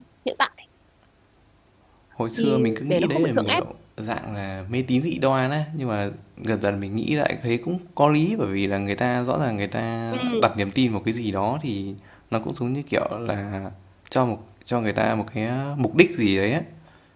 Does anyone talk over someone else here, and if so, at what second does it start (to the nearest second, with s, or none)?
2 s